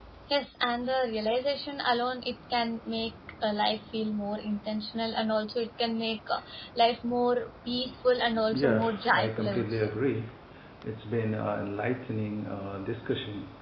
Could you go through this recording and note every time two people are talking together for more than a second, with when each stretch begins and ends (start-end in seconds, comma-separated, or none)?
8.5-9.9